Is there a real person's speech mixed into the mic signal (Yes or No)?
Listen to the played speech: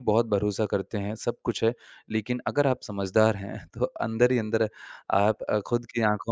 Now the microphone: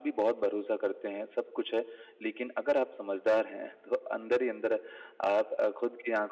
No